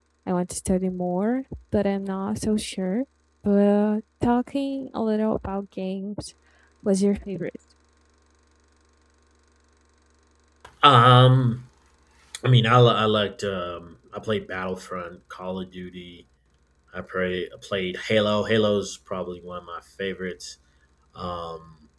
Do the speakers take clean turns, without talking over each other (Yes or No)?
Yes